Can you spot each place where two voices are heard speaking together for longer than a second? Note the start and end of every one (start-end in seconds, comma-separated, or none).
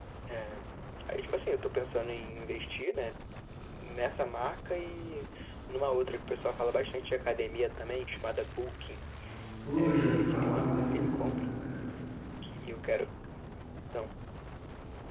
9.8-11.4